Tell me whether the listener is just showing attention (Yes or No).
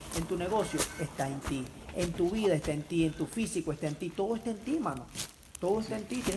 Yes